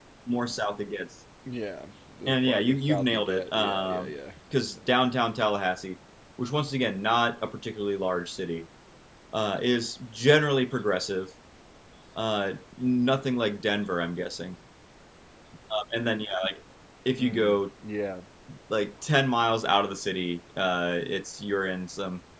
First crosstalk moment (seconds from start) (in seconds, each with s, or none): 2.3 s